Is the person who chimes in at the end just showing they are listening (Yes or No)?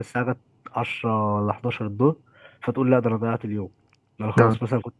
Yes